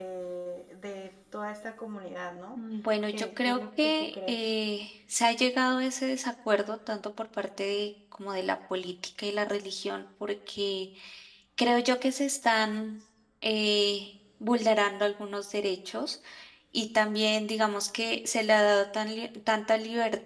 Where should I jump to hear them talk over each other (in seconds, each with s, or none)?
3.1 s